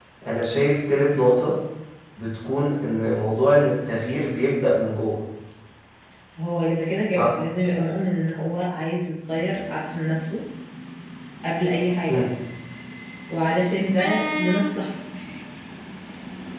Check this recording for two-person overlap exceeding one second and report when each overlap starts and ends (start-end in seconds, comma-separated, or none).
none